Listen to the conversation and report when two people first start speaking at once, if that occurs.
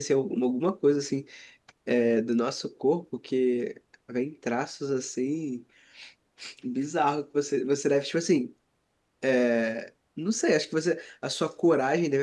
none

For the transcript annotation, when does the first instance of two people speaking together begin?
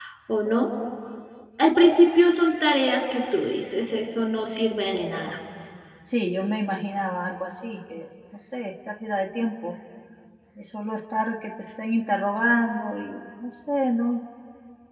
none

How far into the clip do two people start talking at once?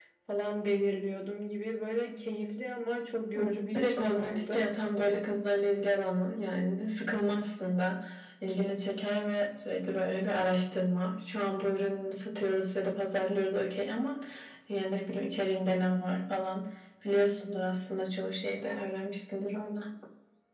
3.3 s

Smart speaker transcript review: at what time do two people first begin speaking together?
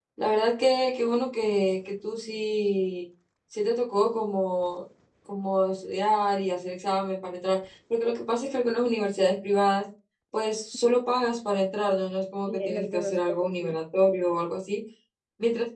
12.5 s

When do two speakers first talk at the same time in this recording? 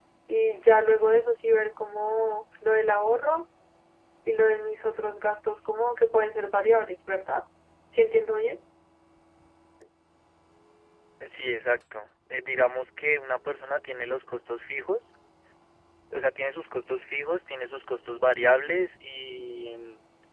none

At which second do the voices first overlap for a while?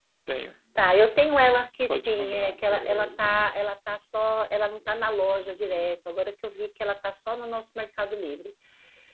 1.9 s

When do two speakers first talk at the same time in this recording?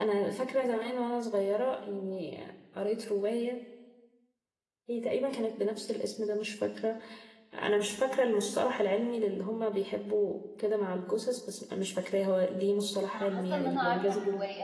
13.1 s

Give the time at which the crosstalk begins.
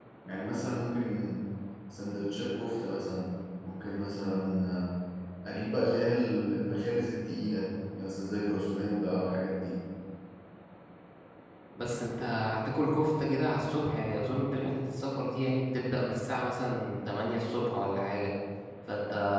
none

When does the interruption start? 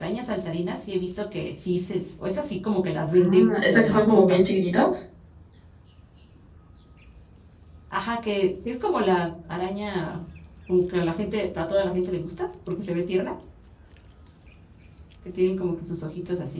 3.1 s

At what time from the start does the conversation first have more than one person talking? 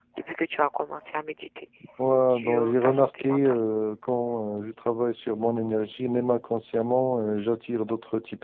2.3 s

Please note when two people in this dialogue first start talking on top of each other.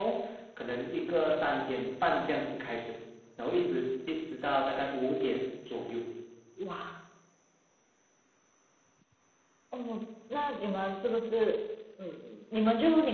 none

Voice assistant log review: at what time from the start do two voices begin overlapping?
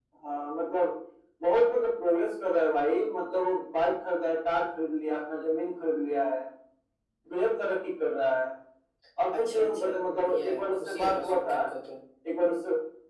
9.4 s

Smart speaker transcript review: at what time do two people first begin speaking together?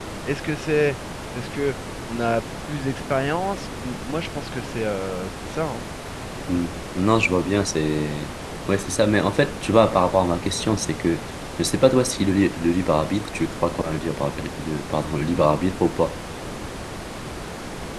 none

